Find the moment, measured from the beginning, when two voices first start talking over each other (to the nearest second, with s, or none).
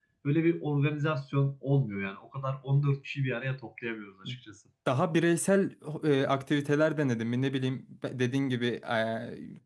none